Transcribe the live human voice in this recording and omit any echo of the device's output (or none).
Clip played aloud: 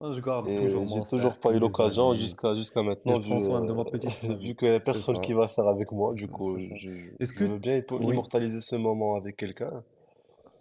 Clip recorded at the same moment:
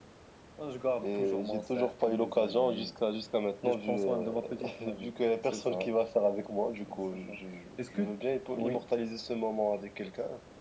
none